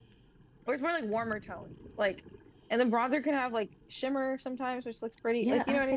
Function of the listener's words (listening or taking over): taking over